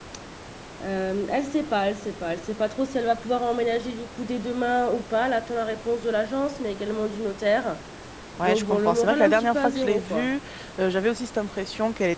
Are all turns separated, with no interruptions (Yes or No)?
No